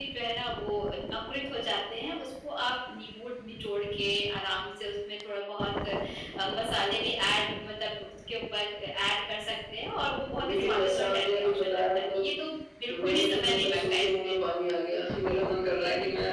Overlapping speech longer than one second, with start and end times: 10.4-12.3, 12.9-14.3

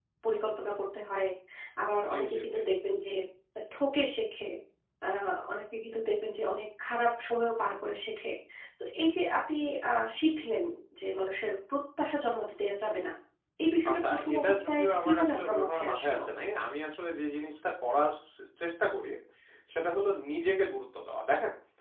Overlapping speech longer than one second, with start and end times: 13.9-16.2

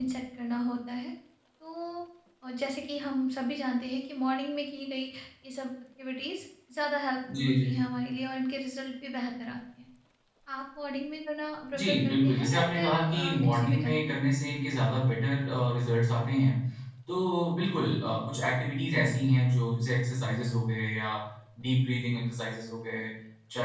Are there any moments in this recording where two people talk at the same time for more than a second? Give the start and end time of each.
11.7-14.1

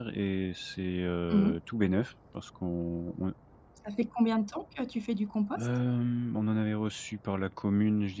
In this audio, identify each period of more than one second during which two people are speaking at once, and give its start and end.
none

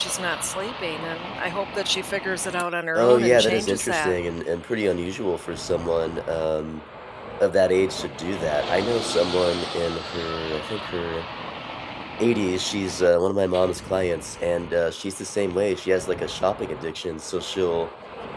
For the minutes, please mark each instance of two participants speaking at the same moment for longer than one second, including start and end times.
3.0-4.2

